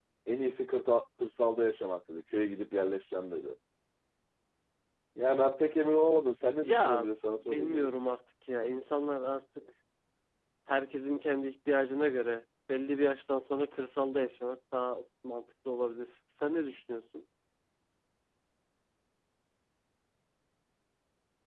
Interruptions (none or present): present